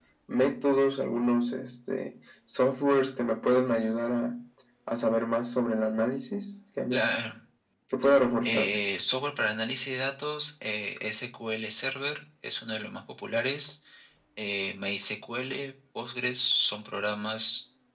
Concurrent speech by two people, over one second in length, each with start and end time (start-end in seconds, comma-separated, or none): none